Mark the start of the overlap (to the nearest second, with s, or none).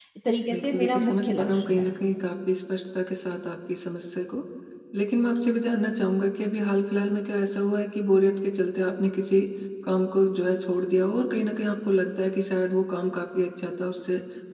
1 s